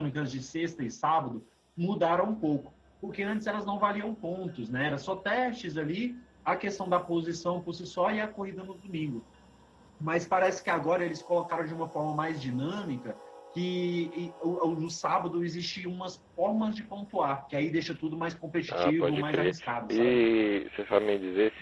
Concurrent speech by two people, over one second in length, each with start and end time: 18.7-20.2

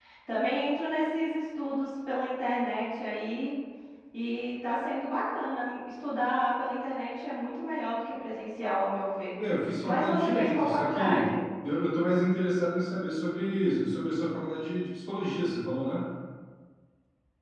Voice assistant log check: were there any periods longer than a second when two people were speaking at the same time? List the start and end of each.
9.9-11.3

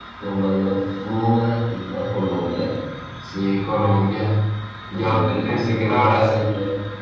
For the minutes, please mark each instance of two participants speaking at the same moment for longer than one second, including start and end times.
4.9-6.5

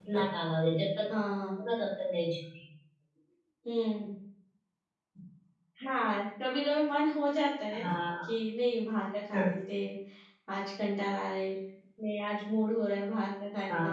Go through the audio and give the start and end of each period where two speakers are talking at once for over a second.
none

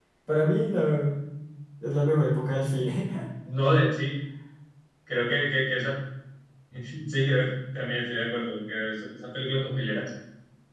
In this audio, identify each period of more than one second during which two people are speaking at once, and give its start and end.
none

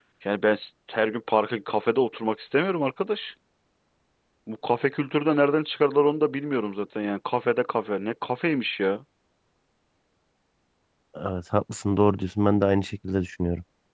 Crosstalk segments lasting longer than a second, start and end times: none

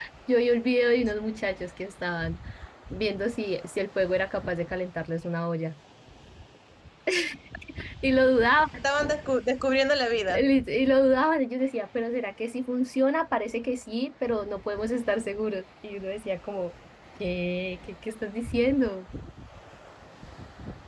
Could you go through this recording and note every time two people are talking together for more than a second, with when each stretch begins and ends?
none

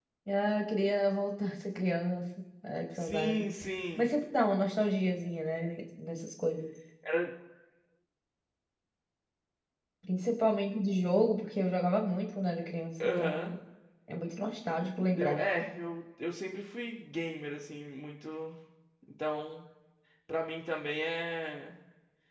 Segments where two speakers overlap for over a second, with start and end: none

